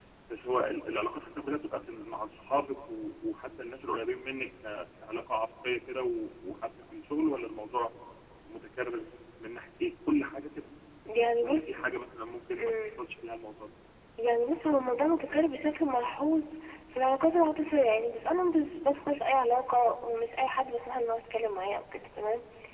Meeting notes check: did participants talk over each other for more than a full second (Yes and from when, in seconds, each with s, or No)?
No